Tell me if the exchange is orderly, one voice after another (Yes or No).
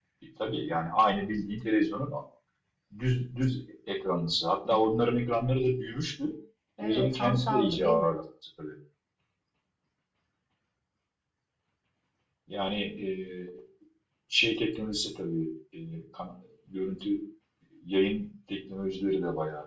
No